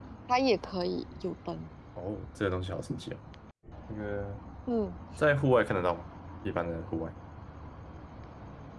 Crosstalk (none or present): none